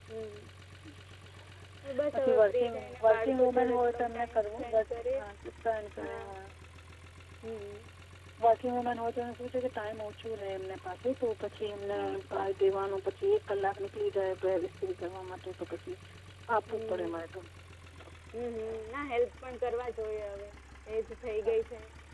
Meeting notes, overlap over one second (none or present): present